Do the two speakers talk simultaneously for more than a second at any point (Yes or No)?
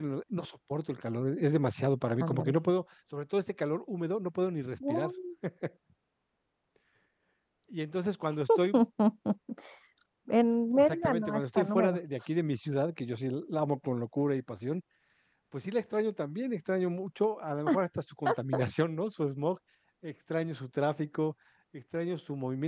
Yes